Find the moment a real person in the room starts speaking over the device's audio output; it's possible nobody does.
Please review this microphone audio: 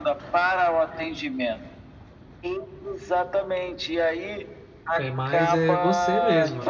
5.0 s

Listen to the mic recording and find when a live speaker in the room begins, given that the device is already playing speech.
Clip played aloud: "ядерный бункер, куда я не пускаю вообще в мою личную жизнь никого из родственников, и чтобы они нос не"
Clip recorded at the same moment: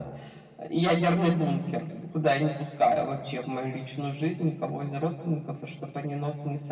none

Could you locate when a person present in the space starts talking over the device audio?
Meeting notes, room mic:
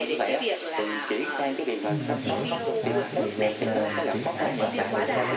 1.9 s

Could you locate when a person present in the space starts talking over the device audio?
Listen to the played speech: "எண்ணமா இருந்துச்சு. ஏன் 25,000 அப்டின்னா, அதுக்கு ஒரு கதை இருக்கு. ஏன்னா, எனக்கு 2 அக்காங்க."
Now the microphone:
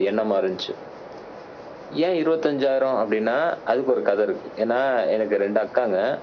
none

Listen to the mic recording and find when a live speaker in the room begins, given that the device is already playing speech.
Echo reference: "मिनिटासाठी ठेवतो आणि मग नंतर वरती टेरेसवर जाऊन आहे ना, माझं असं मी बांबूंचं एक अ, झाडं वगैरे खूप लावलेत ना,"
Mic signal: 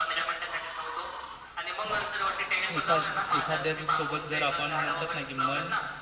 2.7 s

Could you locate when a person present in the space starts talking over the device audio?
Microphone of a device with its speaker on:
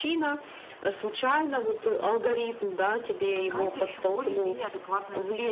3.3 s

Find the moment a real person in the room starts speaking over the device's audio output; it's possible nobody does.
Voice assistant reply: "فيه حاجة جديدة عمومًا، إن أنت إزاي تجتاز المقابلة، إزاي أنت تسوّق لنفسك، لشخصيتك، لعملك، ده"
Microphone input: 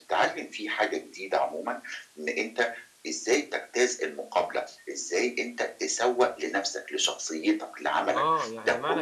8.0 s

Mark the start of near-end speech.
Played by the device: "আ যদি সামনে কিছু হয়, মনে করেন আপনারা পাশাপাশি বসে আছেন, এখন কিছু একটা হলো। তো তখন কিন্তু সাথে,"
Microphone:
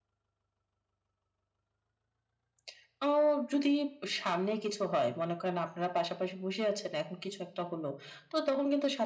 none

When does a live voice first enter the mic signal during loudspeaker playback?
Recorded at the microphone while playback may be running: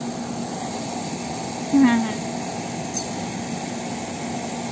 1.7 s

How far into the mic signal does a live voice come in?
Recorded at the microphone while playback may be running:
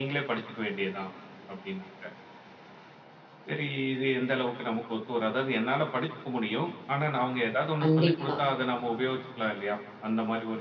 7.8 s

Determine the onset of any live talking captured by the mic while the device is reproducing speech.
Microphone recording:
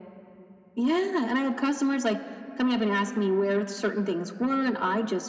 none

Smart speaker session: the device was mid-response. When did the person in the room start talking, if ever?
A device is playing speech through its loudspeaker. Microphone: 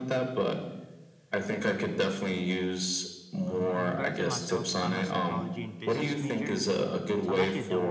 3.5 s

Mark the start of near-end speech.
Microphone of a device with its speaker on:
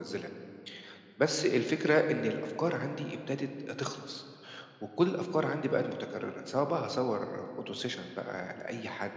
none

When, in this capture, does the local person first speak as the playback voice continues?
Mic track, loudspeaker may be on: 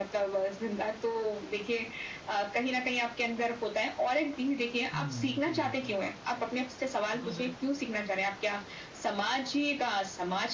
4.9 s

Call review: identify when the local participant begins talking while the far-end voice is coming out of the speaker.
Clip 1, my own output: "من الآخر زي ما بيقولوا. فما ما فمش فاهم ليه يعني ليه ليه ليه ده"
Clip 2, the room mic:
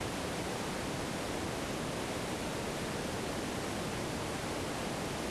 none

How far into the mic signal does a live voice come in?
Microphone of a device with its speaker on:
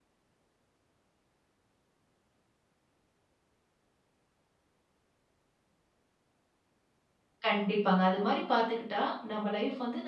7.4 s

